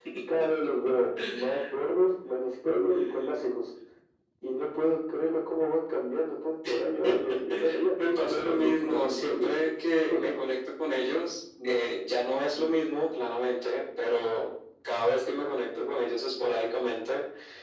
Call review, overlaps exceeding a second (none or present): present